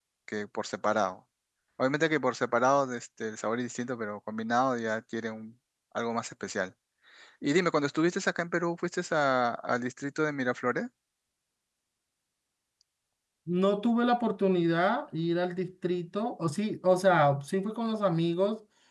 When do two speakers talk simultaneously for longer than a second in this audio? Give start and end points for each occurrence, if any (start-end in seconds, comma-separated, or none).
none